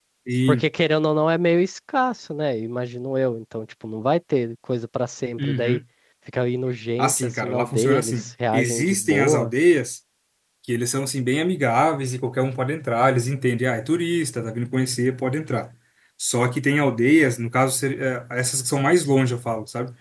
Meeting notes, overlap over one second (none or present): present